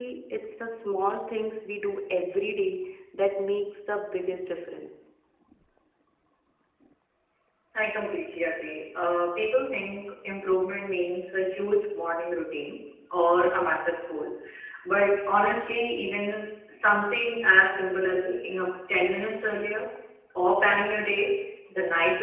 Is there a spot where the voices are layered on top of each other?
No

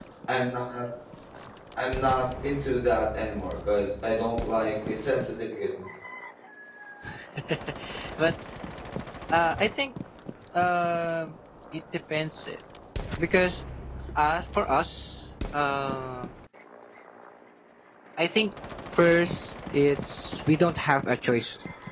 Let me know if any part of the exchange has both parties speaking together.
No

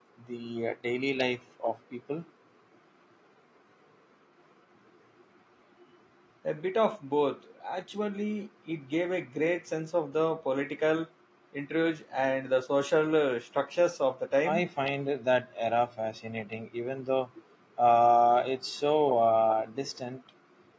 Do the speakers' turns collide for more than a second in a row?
No

